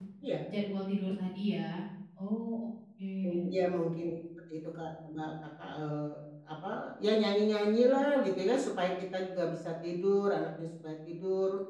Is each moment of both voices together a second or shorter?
Yes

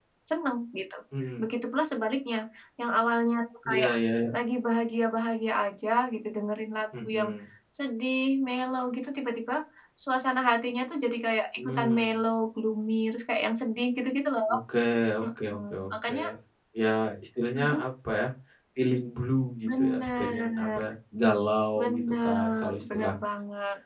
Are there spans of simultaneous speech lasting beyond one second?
Yes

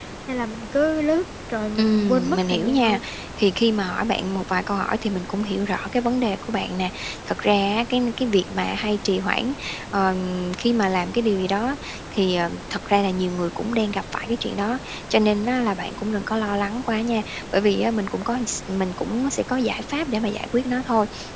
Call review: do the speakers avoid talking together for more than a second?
No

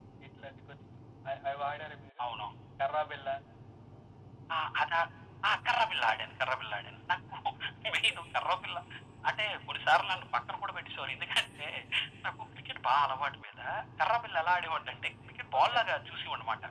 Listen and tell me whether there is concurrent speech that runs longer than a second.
No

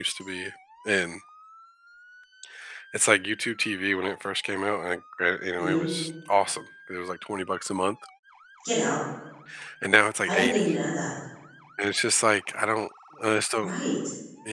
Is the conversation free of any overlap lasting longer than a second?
Yes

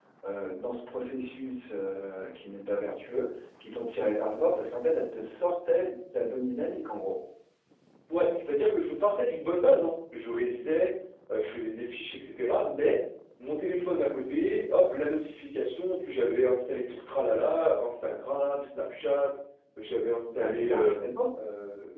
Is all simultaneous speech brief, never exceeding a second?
Yes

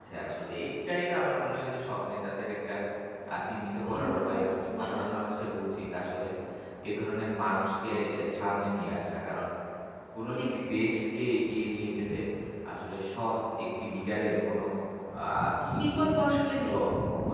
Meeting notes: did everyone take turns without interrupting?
No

